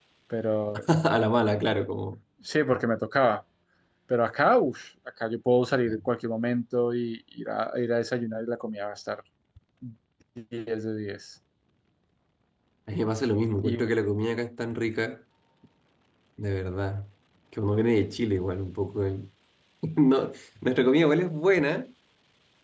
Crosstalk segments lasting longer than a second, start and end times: none

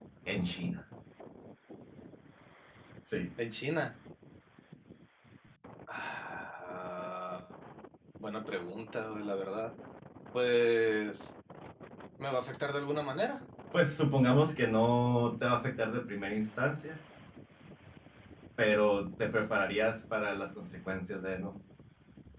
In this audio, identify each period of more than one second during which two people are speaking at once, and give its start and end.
none

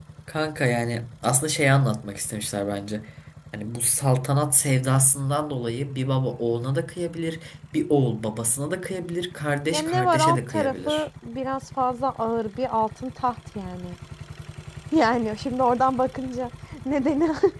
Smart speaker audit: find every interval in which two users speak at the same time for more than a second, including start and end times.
9.7-11.0

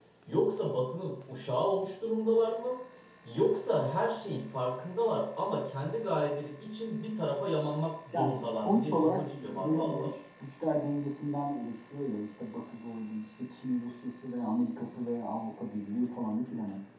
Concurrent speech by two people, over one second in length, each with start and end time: 8.1-10.1

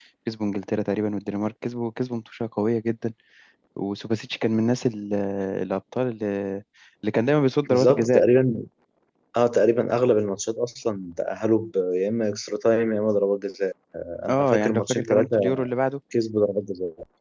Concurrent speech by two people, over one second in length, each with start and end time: 14.3-15.7

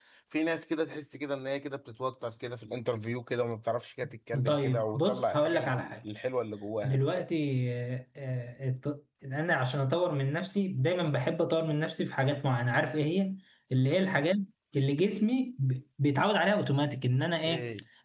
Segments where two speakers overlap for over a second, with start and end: 4.5-6.0

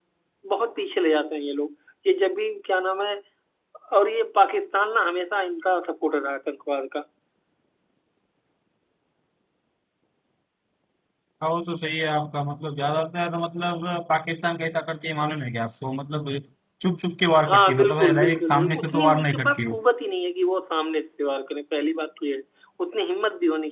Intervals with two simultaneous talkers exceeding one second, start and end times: 17.5-19.8

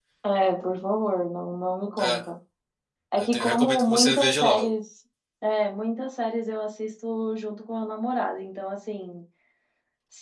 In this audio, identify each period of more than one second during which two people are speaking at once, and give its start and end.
3.2-4.7

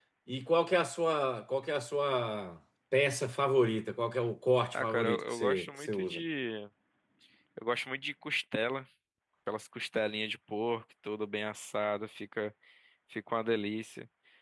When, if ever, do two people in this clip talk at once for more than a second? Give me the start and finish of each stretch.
4.7-6.2

